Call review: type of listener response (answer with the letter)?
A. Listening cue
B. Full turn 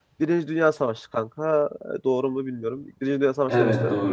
A